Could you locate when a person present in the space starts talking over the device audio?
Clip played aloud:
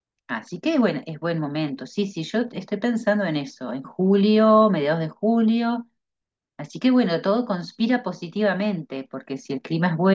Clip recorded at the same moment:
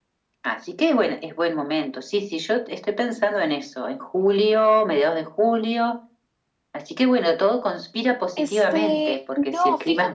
8 s

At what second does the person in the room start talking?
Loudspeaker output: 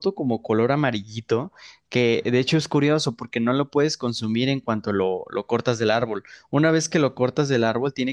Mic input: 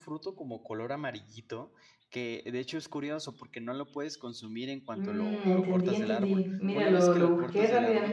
5 s

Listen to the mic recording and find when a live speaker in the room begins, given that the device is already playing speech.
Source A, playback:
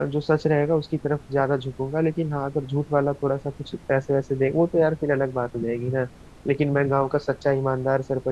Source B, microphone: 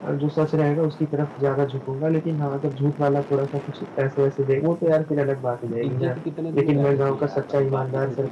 6 s

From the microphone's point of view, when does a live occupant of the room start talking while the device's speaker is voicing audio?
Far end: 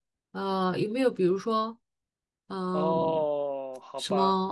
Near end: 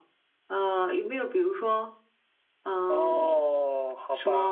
none

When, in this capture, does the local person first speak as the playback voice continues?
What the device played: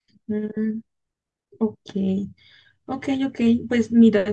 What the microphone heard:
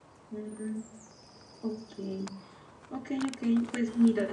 none

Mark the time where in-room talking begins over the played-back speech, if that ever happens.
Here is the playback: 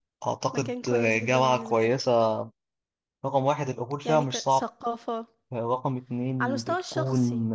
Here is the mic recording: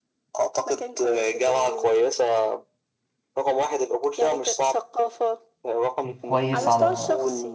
6 s

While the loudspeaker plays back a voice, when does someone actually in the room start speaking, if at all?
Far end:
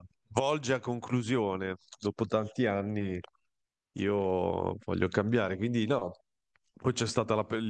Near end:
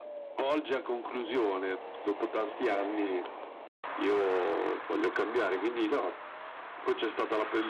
none

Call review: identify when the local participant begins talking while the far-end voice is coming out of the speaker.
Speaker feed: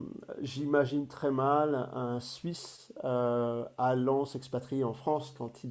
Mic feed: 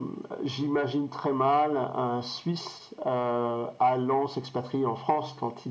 none

